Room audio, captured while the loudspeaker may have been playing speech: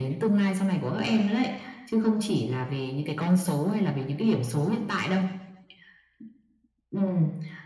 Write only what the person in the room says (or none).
none